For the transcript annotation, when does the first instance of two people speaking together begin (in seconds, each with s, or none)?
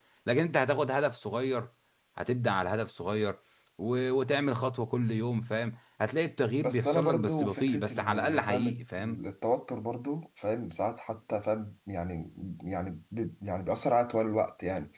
6.6 s